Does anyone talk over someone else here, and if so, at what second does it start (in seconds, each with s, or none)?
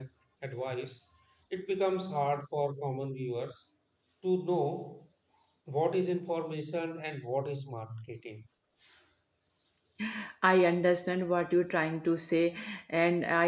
none